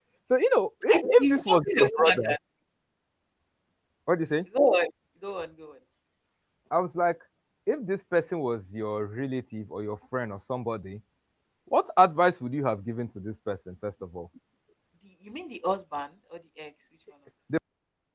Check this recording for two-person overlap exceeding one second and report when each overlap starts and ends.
0.9-2.4

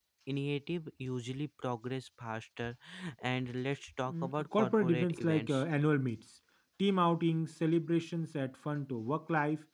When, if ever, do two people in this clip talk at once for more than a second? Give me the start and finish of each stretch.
4.1-5.6

